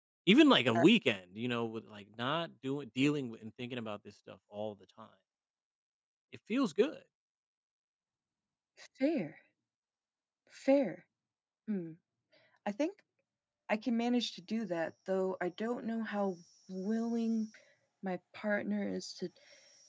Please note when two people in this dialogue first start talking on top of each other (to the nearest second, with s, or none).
none